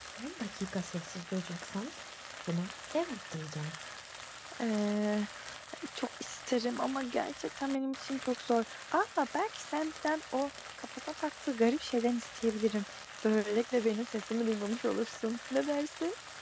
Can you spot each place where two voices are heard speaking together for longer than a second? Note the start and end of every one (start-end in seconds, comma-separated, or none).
none